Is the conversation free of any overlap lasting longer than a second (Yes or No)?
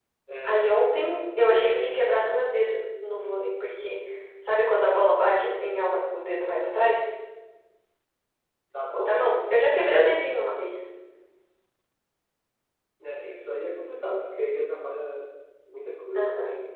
Yes